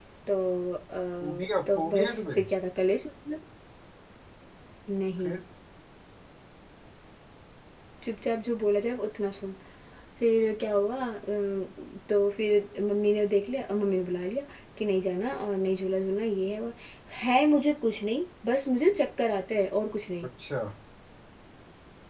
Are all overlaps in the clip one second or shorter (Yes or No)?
No